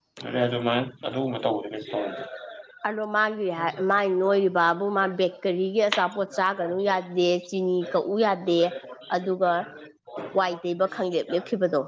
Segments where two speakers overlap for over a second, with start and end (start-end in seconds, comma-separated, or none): none